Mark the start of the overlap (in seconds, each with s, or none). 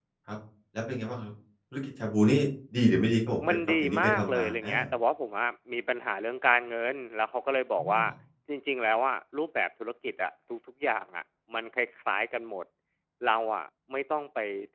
3.5 s